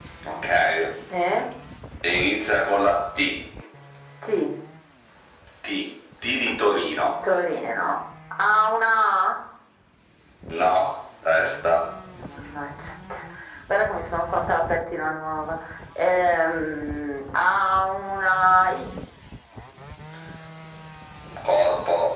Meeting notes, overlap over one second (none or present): none